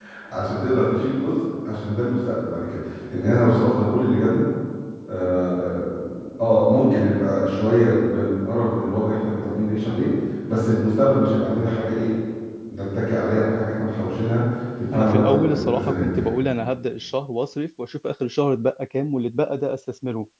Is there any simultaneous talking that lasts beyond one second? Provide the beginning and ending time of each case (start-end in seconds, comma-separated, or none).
14.9-16.3